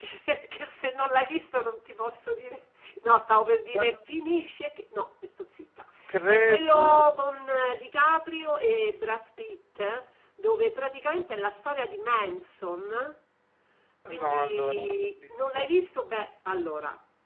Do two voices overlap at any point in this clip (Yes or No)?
Yes